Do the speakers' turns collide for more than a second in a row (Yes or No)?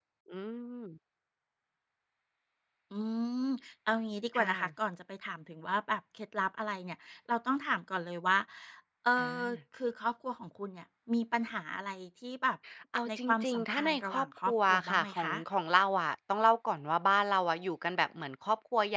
Yes